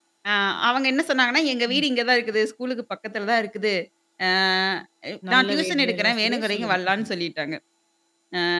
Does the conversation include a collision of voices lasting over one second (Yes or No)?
Yes